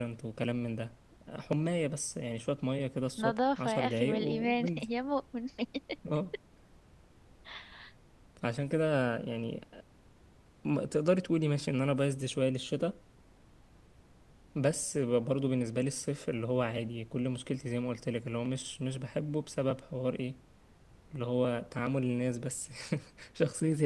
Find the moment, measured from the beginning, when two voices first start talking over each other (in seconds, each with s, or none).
3.2 s